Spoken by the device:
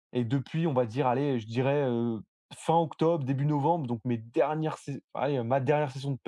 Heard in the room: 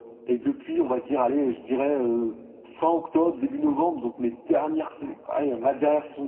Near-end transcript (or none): Ouais,